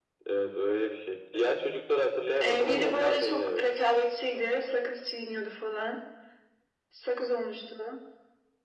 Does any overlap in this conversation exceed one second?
Yes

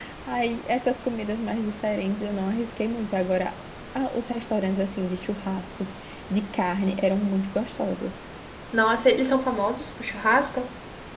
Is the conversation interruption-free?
Yes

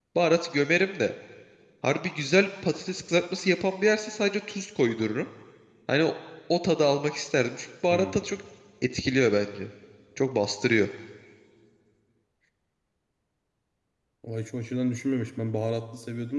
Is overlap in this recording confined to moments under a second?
Yes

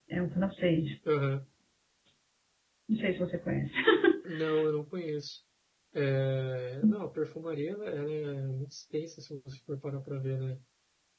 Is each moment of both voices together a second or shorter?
Yes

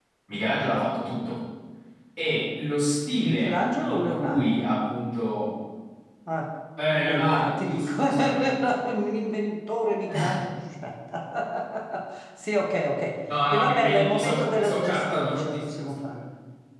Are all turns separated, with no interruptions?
No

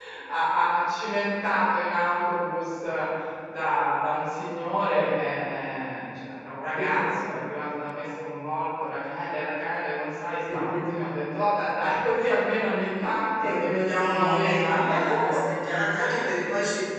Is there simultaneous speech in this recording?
Yes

